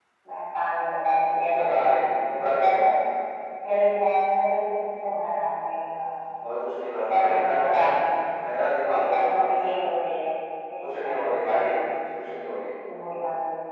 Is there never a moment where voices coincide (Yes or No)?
No